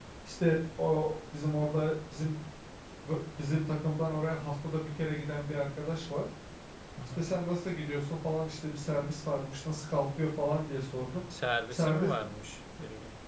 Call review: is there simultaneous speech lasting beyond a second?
No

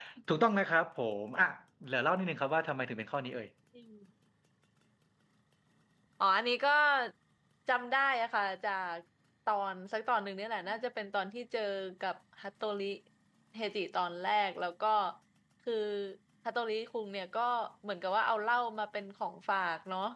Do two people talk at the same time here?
No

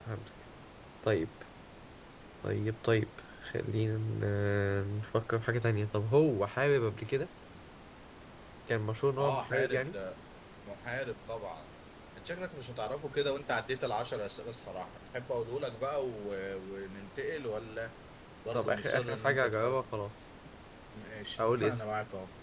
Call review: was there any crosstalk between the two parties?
Yes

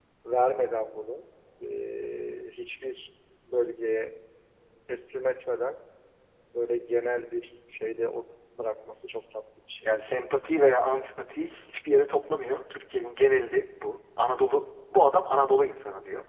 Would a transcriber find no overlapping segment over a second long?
Yes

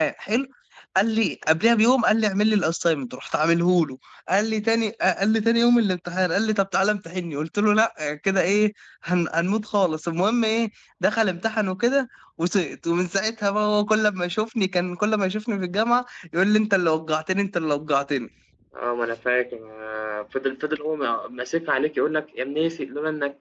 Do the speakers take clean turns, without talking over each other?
Yes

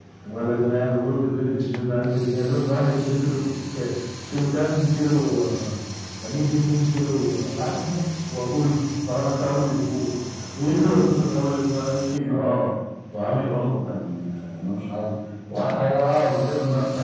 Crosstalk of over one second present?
No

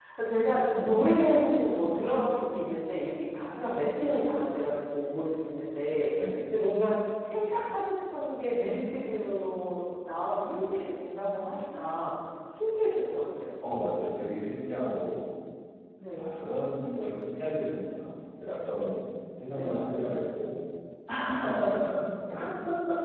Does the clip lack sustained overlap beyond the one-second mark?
Yes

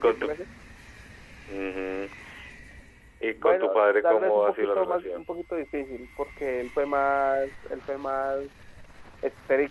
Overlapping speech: Yes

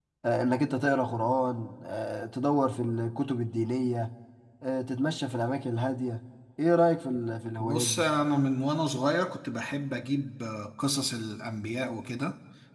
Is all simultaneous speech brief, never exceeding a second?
Yes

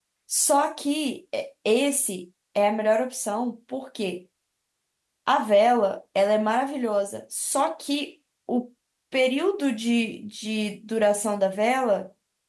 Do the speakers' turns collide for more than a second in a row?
No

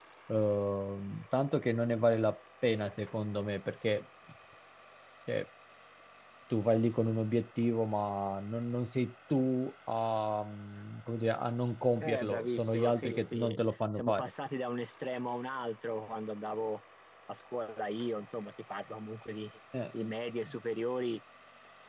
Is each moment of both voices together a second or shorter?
No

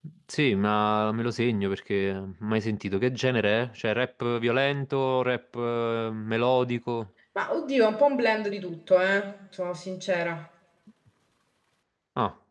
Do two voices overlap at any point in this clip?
No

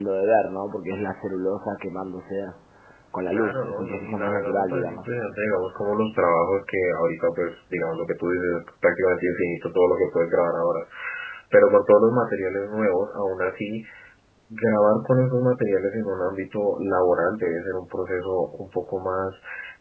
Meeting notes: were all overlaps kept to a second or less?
No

